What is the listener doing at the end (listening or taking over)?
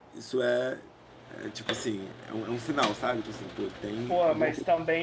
taking over